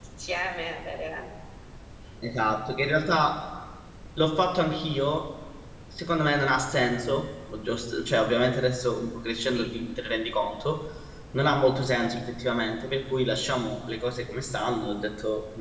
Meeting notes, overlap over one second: none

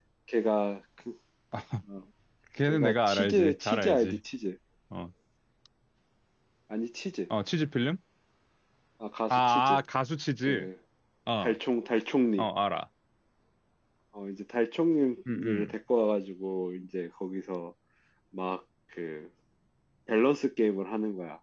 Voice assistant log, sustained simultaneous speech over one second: present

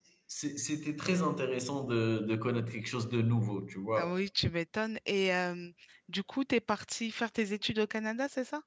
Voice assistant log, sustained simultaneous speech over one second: none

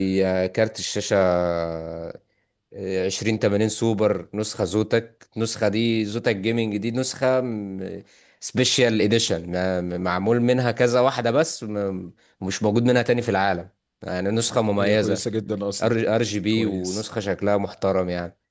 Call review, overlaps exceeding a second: none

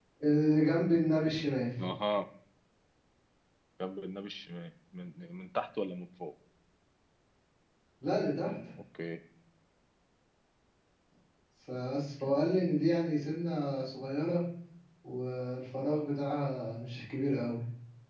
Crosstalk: none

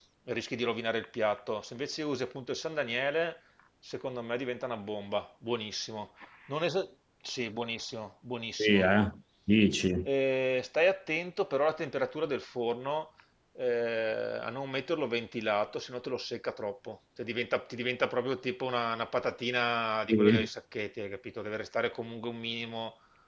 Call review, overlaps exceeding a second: none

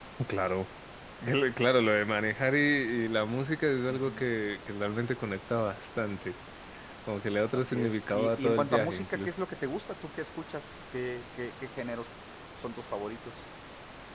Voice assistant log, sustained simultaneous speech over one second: present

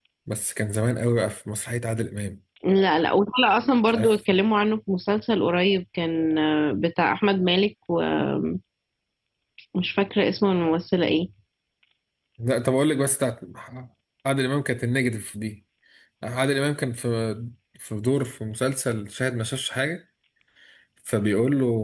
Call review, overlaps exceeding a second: none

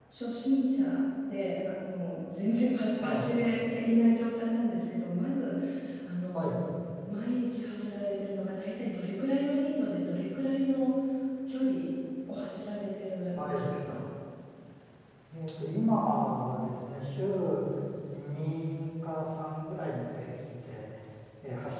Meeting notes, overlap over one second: none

